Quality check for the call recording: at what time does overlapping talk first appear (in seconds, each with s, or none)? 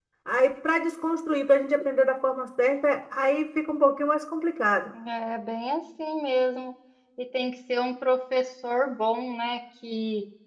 none